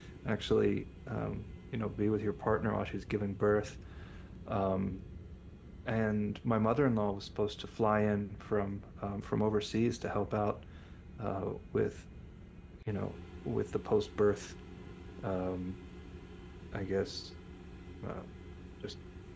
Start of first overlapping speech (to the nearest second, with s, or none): none